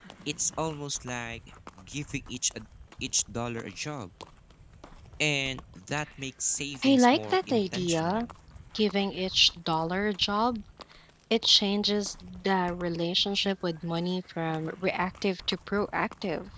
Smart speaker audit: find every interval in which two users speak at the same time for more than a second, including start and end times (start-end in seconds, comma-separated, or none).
6.8-8.3